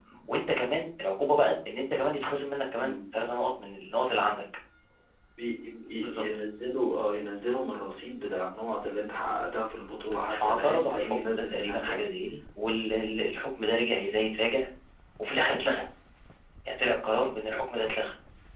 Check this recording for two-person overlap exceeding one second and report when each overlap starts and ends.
10.3-12.0

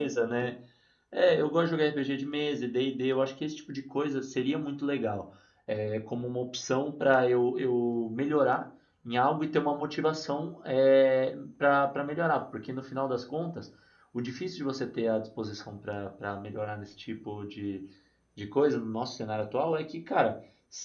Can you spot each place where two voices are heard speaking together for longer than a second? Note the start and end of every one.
none

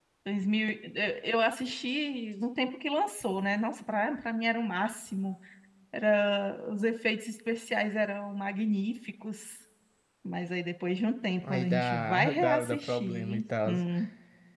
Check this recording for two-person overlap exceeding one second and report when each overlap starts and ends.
11.5-13.7

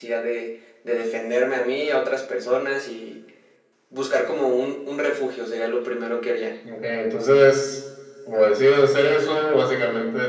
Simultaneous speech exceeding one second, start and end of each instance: none

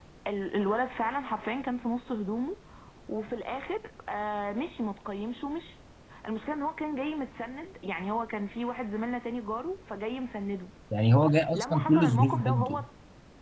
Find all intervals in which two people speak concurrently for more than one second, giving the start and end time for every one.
11.5-12.8

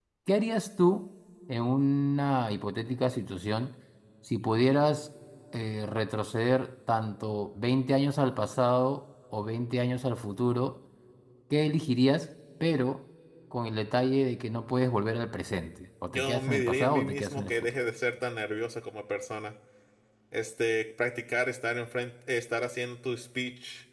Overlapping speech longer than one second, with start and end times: 16.1-17.8

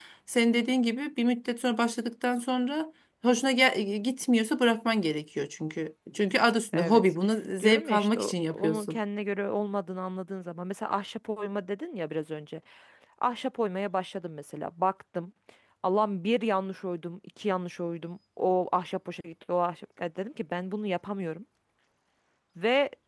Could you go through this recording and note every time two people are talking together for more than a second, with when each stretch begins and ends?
7.6-9.0

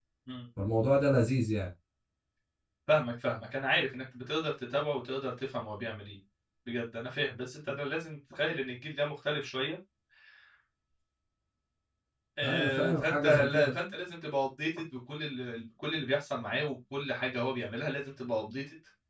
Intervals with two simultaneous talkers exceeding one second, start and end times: 12.4-13.7

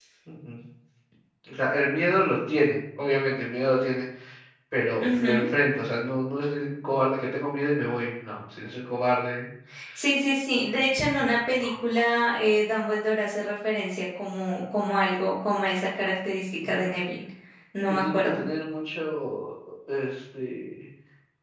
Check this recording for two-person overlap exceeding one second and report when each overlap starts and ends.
none

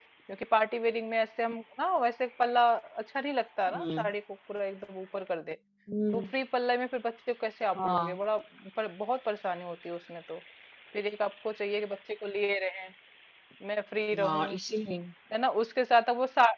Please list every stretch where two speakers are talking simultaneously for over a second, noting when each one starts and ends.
none

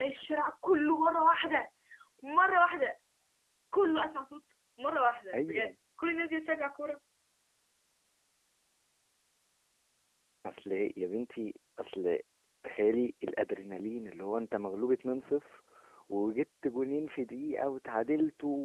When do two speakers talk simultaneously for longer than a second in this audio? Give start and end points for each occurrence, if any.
none

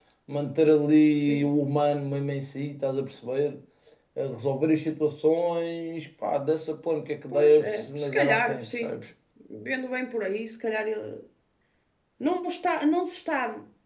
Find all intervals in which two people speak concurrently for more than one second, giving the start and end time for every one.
7.3-8.9

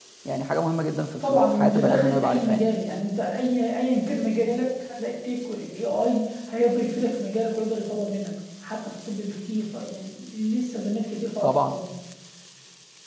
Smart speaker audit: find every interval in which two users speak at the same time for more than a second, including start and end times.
1.2-2.6

